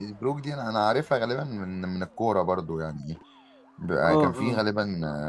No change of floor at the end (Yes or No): Yes